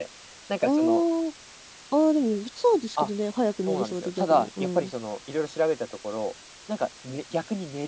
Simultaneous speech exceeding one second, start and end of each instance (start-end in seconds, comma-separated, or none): 3.7-4.9